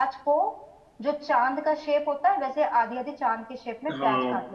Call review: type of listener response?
taking over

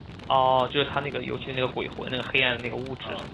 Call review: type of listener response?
taking over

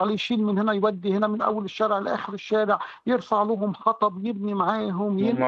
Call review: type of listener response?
taking over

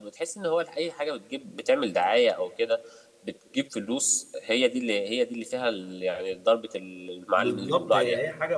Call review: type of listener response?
taking over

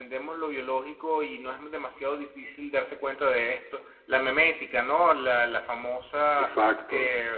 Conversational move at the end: listening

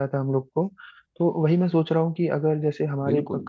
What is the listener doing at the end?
listening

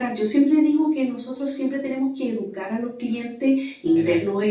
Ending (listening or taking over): listening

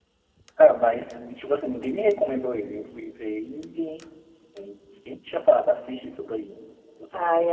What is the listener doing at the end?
taking over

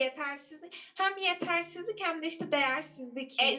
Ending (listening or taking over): taking over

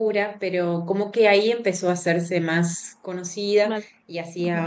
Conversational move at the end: listening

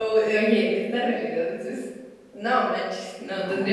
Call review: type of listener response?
listening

